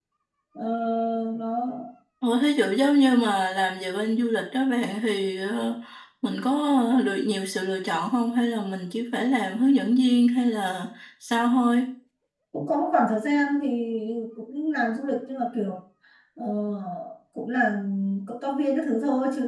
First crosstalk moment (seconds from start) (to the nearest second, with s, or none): none